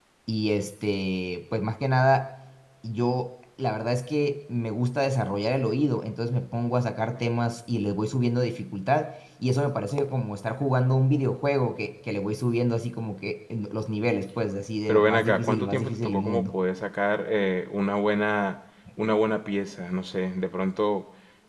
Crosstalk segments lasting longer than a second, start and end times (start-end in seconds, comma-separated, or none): 14.9-16.4